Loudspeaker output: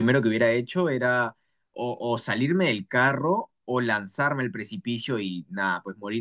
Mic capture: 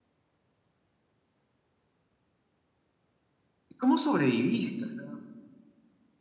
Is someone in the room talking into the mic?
Yes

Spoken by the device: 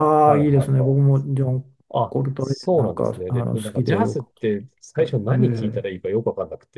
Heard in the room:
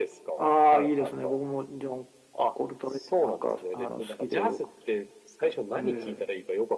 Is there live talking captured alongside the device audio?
No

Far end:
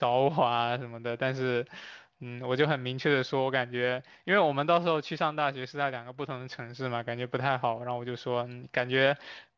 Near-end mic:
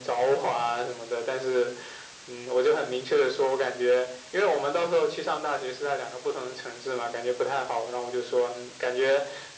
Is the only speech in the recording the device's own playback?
Yes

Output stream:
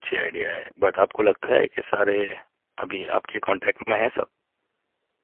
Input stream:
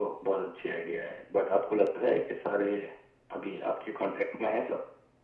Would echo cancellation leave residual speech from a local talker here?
No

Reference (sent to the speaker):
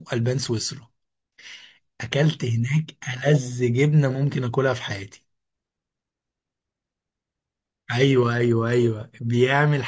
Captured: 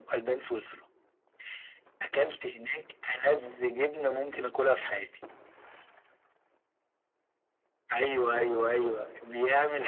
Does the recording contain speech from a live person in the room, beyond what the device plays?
No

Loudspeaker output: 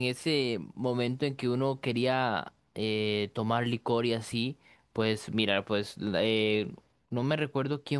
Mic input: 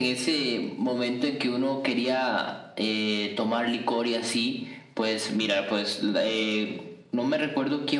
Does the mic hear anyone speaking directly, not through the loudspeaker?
No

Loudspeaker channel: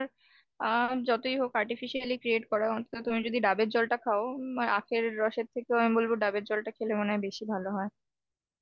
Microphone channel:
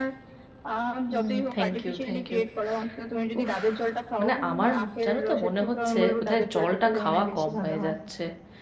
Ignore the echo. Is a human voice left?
Yes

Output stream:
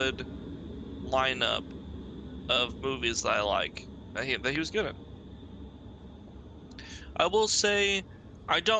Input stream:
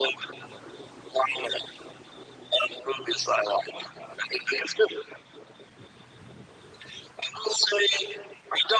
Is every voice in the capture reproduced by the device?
Yes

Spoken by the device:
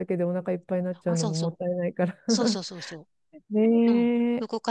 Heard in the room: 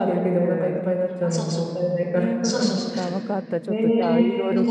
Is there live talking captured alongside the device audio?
Yes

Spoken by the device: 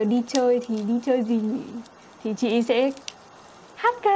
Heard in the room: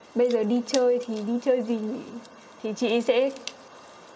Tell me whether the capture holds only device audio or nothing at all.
Yes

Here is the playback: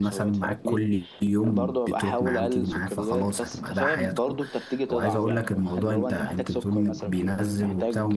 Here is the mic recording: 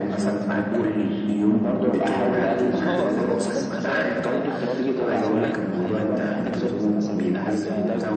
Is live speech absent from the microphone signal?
No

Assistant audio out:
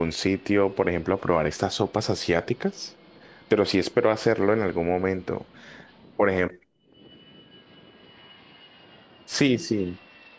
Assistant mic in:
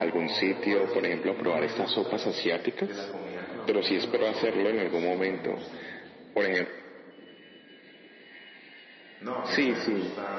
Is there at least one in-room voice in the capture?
Yes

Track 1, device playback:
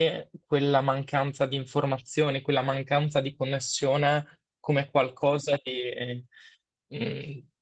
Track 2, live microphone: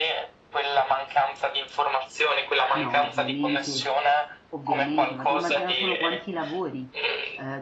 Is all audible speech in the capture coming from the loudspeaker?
No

